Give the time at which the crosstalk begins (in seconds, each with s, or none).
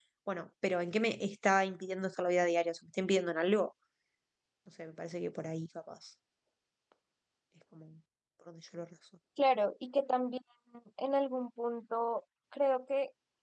none